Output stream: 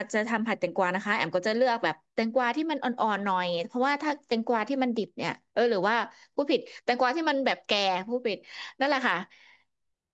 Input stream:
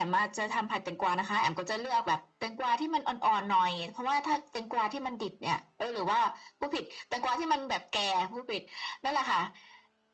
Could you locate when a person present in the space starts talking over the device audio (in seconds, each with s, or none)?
none